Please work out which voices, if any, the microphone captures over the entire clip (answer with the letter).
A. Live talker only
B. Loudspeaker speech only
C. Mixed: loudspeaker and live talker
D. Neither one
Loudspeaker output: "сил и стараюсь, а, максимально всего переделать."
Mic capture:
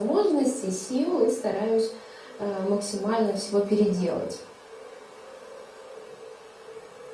B